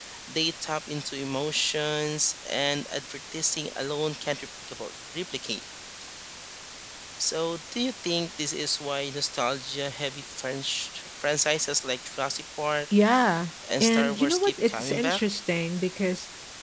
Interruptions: present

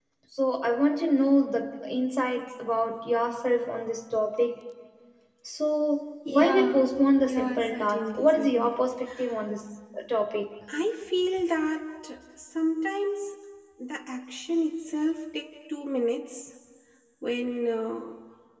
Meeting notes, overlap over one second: present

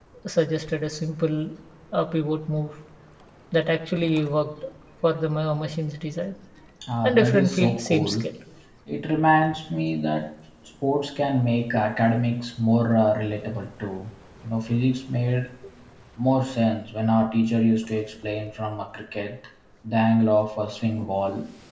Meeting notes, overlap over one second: present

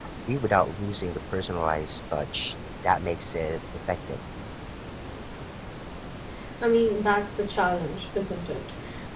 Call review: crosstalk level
none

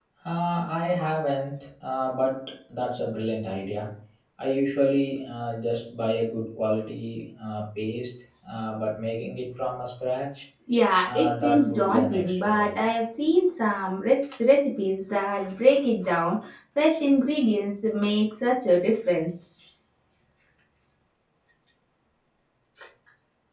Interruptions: present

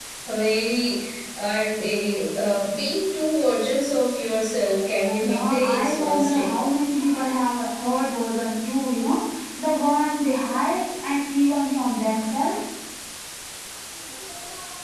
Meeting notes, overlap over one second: present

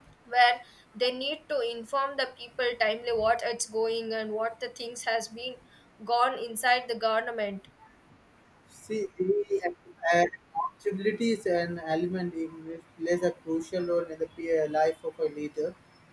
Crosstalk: none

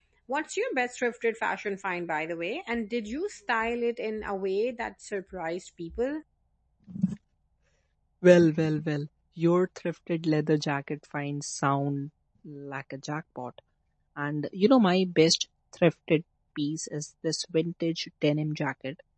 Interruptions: none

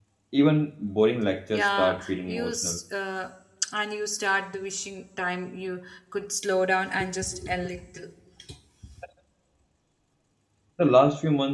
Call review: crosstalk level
present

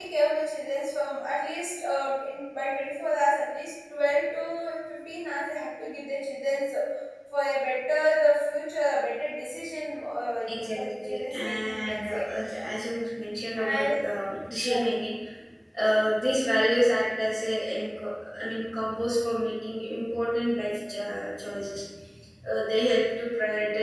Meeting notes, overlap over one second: present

